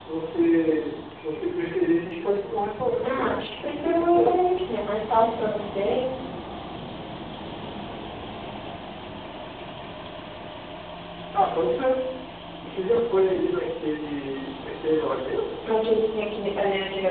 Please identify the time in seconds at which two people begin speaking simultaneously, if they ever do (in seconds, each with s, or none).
3.0 s